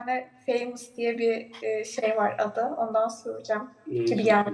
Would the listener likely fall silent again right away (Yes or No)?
No